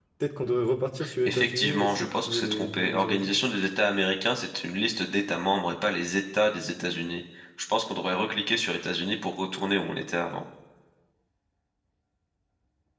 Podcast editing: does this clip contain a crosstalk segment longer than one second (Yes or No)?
Yes